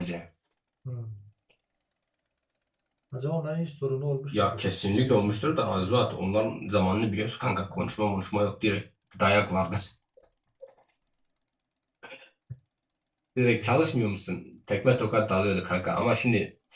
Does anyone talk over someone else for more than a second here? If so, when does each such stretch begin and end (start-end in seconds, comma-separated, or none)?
4.3-6.2